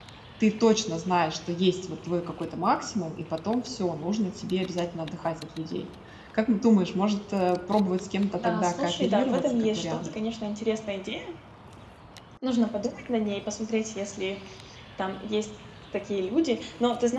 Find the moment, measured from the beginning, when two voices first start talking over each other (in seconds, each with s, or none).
8.4 s